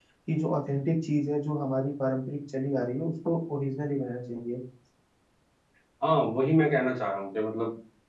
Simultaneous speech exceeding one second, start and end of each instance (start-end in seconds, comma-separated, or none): none